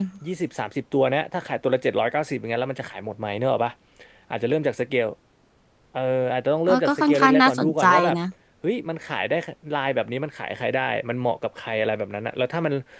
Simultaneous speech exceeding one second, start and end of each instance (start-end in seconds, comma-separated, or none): 6.7-8.2